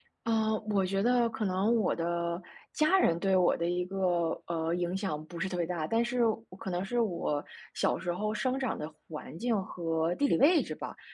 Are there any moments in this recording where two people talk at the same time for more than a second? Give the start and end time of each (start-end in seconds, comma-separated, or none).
none